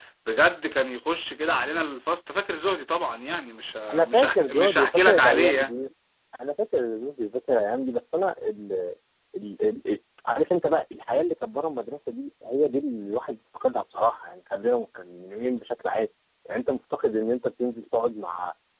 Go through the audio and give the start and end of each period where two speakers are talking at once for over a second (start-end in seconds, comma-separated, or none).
3.9-5.7